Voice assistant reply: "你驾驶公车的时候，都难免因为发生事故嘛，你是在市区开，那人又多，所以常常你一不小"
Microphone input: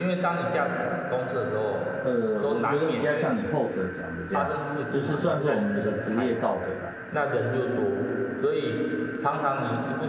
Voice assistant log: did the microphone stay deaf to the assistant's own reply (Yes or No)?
No